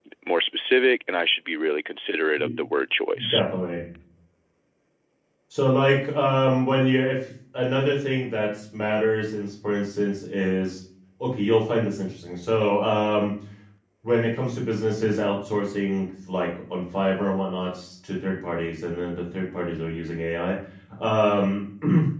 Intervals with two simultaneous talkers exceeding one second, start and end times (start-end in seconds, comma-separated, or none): none